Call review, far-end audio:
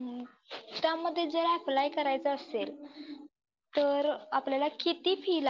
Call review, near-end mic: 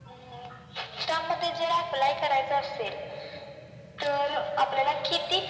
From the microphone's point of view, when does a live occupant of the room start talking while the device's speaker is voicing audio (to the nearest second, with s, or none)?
none